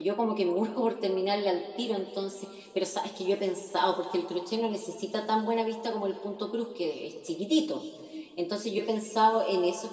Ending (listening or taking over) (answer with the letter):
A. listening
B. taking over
A